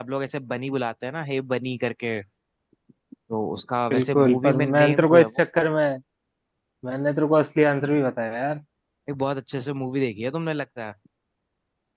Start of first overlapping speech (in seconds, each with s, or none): 3.9 s